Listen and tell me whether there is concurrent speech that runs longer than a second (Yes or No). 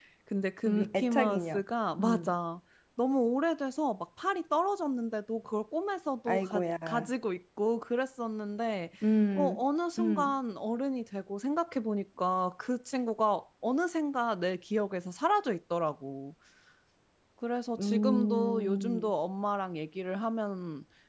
Yes